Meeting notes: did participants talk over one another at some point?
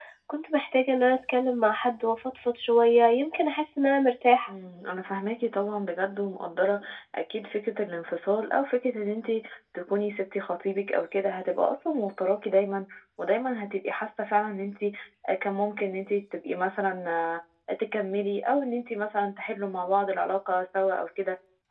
No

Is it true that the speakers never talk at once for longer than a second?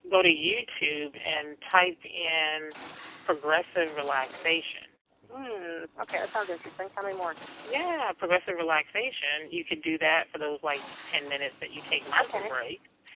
Yes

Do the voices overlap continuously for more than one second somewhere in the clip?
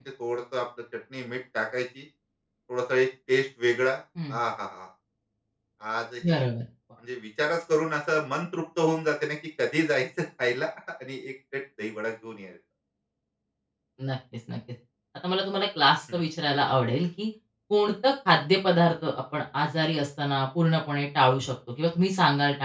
No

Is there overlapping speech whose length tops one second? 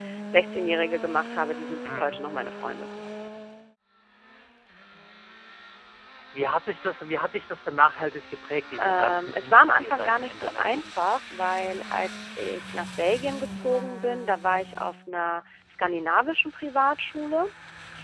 Yes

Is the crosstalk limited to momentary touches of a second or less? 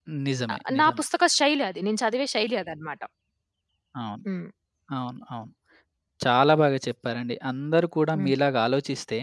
Yes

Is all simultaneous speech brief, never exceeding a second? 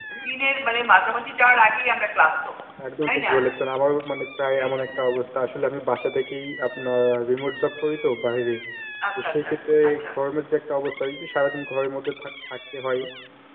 Yes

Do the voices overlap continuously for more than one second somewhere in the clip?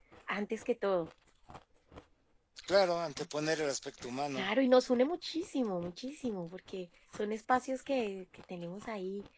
No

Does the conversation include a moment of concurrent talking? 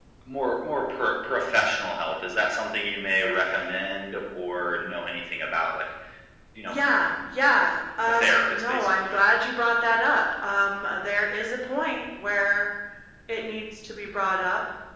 Yes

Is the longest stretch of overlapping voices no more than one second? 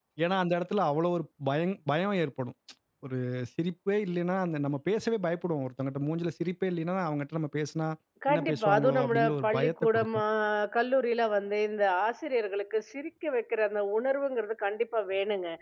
No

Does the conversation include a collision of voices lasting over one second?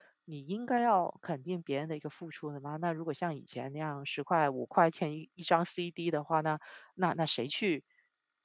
No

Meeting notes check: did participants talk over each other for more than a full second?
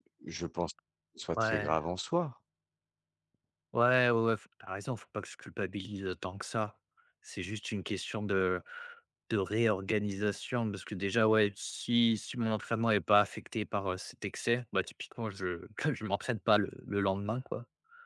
No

